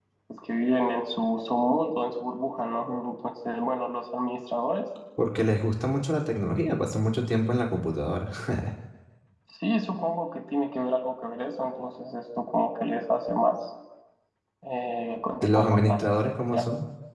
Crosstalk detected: Yes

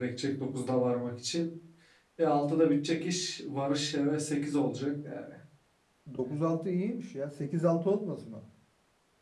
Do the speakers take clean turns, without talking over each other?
Yes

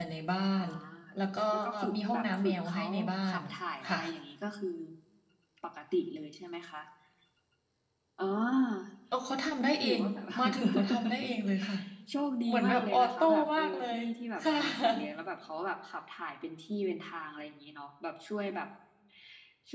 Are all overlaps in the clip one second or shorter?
No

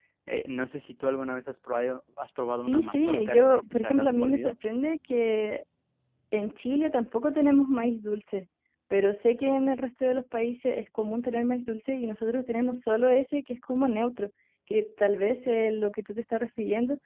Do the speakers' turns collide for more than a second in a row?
Yes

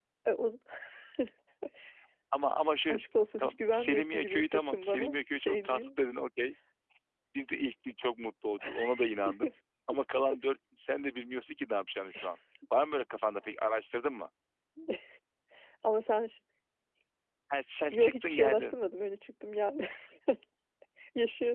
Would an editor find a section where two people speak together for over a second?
Yes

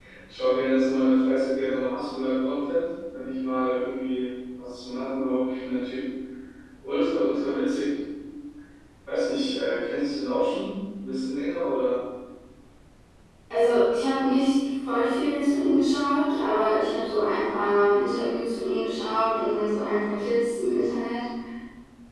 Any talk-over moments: No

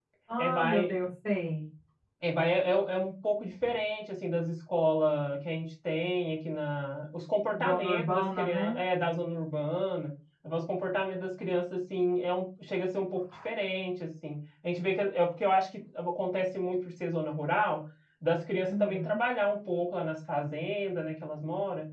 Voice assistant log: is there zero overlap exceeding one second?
No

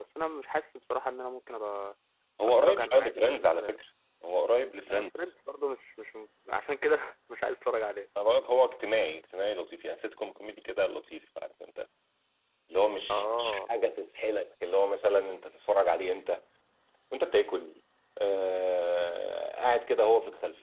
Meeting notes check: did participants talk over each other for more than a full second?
Yes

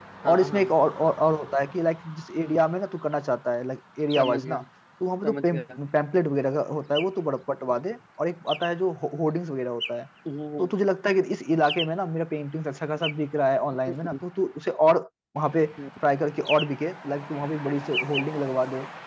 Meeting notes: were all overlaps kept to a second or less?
Yes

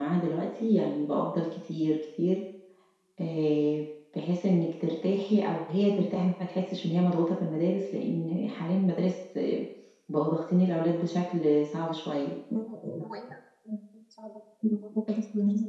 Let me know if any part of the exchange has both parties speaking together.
No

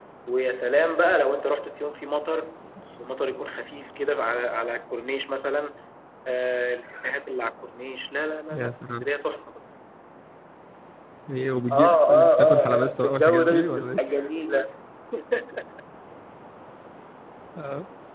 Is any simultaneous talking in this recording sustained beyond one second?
Yes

